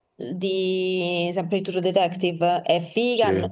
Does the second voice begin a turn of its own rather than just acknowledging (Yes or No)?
No